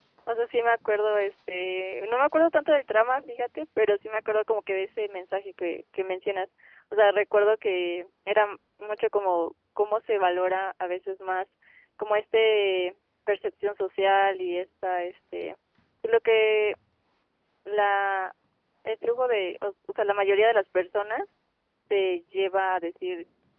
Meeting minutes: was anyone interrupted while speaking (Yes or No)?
No